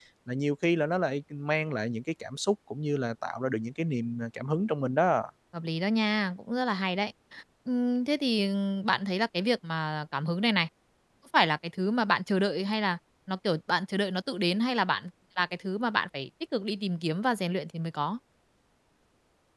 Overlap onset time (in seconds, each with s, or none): none